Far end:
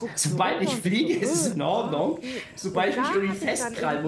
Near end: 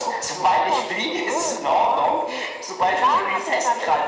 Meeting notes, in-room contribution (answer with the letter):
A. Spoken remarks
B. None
A